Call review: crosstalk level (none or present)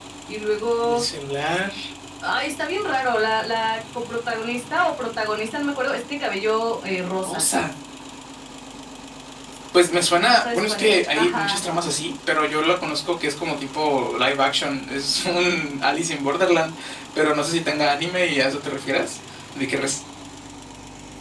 present